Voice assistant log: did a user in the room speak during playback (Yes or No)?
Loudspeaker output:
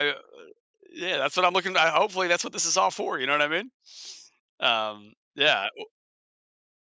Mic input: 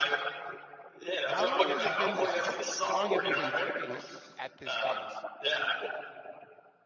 Yes